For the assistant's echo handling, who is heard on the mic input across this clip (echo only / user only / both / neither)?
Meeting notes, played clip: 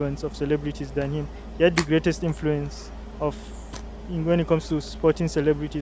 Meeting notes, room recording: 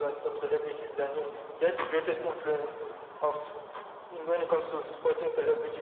echo only